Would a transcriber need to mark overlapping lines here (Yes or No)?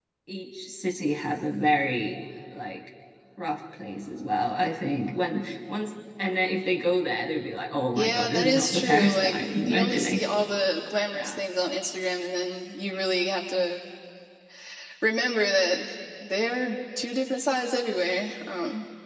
Yes